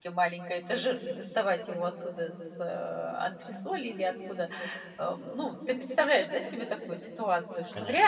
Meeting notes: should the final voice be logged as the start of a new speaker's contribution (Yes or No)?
No